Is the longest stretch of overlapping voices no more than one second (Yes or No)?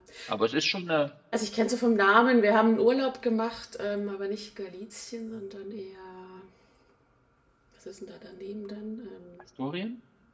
Yes